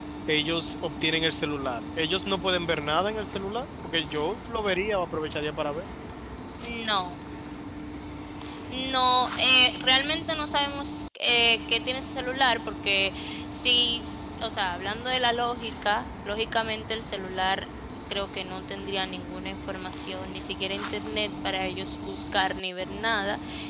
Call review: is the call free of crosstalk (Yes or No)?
Yes